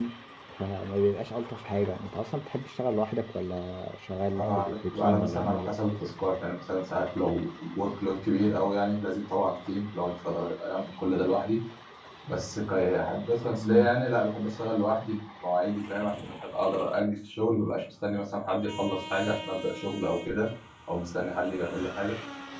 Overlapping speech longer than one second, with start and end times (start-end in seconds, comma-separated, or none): 4.3-5.8